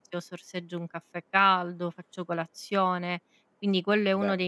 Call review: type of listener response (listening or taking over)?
listening